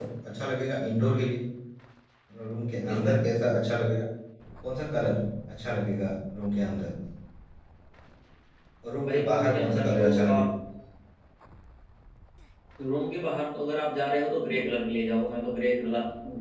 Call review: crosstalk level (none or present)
present